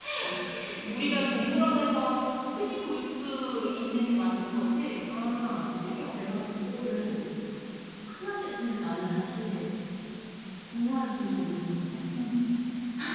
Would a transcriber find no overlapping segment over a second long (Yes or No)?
No